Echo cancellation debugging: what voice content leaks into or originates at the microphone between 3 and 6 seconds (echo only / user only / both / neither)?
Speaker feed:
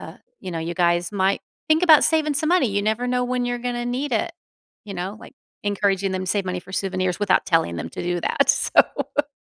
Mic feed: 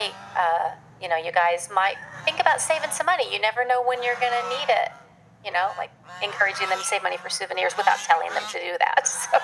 echo only